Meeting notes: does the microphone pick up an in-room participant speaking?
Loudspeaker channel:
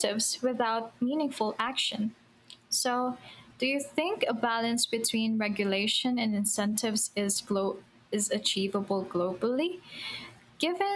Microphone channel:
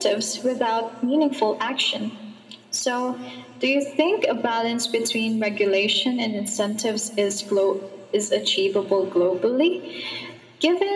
No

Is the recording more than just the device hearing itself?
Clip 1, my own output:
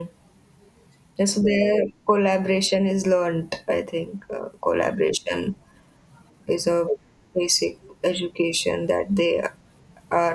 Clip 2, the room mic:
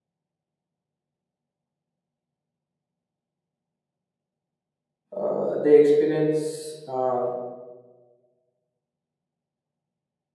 Yes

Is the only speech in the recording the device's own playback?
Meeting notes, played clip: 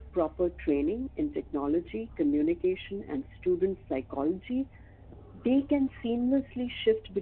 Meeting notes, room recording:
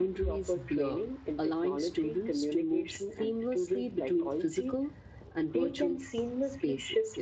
No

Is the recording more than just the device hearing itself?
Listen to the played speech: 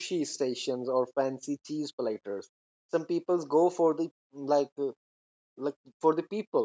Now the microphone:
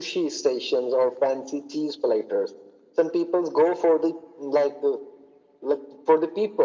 No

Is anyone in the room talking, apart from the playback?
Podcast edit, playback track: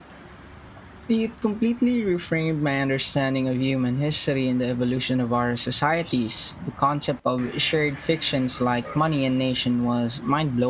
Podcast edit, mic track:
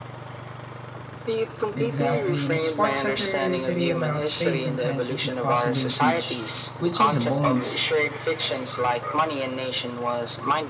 Yes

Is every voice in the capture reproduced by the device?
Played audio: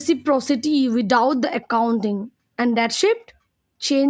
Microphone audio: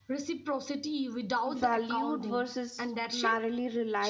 No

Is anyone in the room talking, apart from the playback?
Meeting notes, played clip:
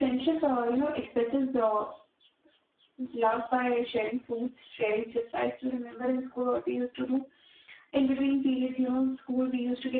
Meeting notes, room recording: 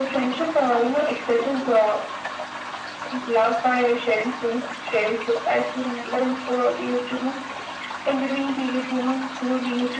No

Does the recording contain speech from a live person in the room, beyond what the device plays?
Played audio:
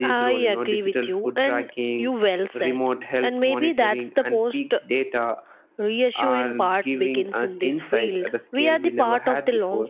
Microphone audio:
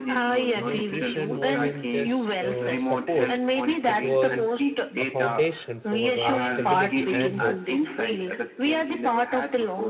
Yes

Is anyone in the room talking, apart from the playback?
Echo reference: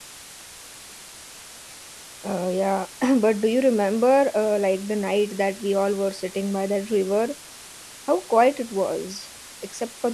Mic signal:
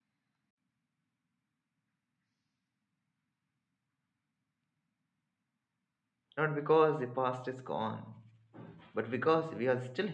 Yes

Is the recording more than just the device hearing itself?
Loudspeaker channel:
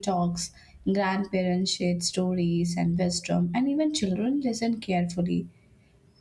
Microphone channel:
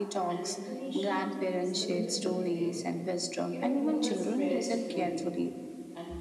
Yes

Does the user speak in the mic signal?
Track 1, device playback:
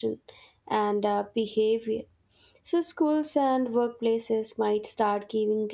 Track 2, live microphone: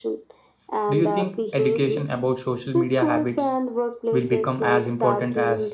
Yes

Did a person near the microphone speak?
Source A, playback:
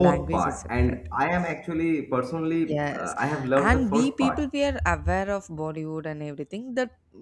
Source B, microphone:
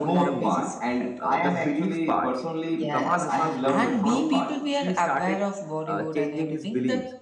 Yes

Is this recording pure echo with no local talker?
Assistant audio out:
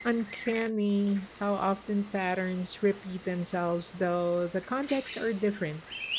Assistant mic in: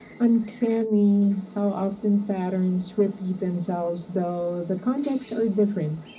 Yes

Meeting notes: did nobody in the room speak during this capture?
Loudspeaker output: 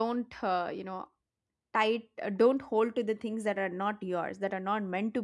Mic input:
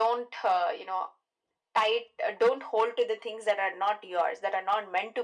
Yes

